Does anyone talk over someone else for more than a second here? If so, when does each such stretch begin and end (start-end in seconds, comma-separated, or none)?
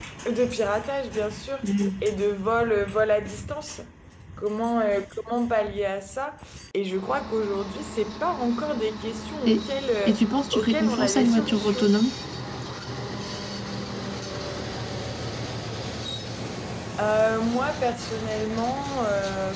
10.5-11.9